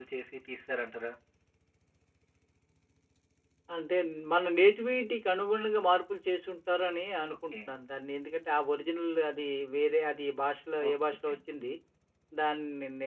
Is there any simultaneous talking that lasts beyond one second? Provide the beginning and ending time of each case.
none

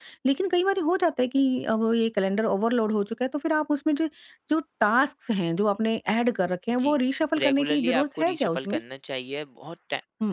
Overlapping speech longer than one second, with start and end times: 7.4-8.8

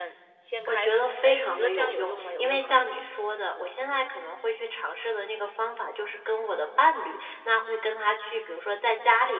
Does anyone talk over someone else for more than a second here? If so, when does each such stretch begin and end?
0.7-2.9

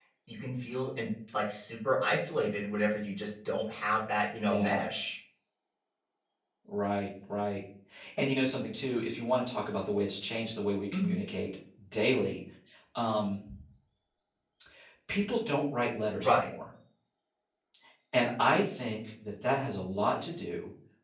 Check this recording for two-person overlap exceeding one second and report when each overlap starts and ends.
none

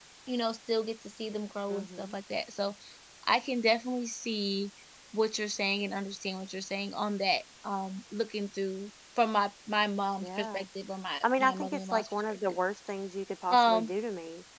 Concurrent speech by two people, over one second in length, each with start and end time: 11.2-12.6

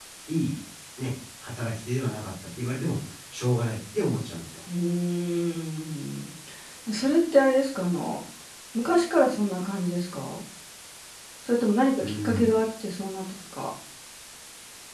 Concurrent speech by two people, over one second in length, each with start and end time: none

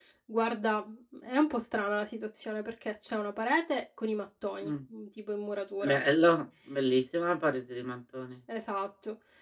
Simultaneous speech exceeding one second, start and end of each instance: none

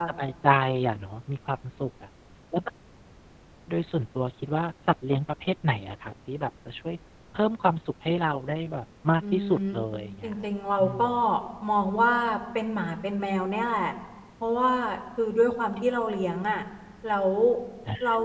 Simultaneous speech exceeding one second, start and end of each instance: none

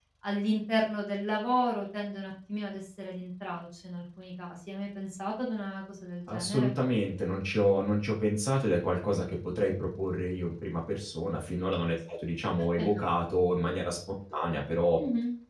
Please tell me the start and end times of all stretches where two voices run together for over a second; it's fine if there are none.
none

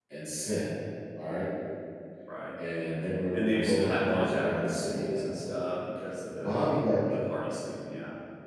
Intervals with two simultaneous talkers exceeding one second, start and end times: 3.3-5.6

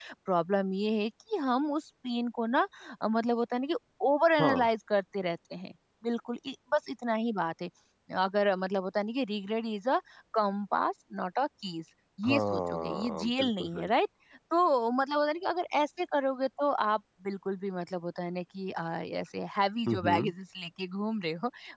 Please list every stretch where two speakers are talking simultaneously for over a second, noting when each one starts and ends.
12.2-13.9

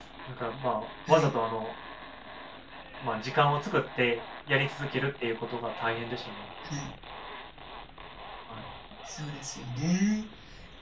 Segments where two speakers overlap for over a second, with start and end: none

